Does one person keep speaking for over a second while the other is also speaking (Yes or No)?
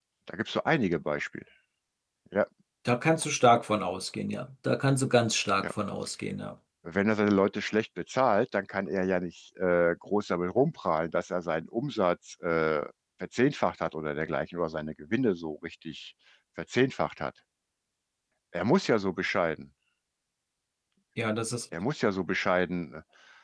No